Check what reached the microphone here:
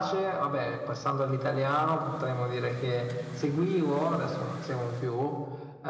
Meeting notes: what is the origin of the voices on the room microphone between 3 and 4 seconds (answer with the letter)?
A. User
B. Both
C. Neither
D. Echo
D